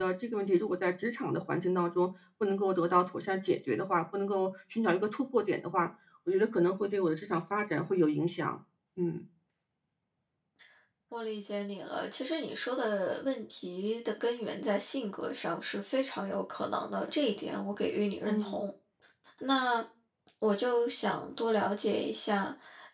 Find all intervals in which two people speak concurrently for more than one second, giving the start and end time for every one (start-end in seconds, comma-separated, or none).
none